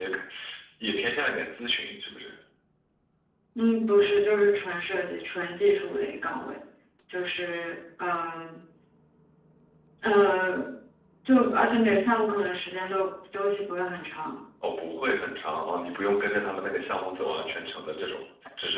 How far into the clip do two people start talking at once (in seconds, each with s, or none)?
none